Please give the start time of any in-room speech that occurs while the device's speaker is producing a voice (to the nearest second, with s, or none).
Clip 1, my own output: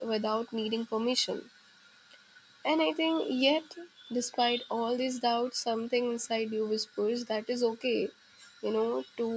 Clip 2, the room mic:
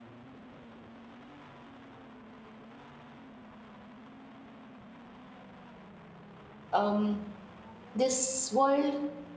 7 s